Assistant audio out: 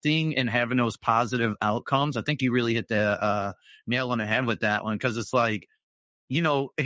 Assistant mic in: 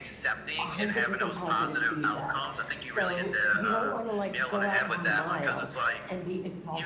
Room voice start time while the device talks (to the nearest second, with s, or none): 1 s